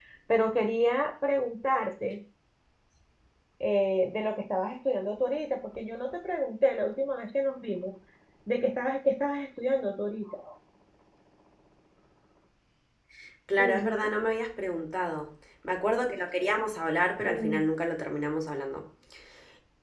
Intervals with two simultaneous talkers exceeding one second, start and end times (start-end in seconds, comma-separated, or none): none